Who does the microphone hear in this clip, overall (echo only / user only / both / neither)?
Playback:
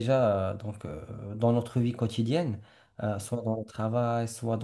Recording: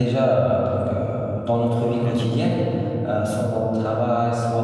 both